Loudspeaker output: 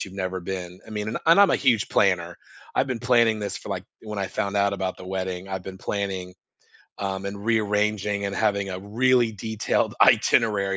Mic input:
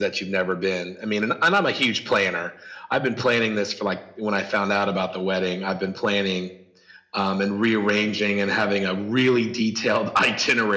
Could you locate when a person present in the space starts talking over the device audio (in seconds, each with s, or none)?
none